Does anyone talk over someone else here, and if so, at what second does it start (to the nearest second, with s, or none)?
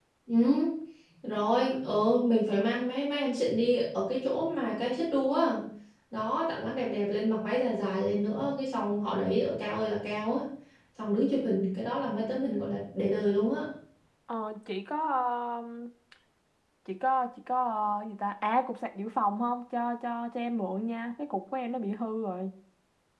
none